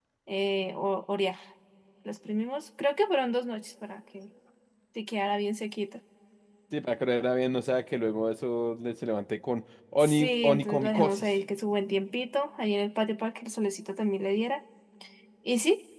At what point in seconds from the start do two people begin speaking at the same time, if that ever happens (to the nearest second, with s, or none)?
10 s